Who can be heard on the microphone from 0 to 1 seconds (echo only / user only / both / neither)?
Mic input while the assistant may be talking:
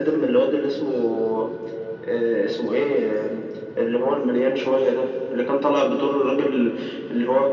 echo only